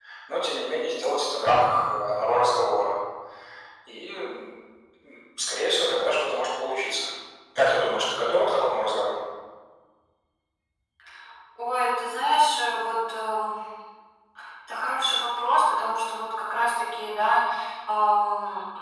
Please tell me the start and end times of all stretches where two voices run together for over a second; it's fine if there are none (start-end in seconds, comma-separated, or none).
none